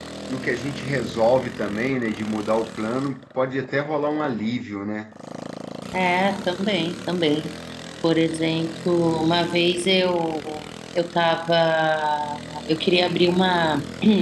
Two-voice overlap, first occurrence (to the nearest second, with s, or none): none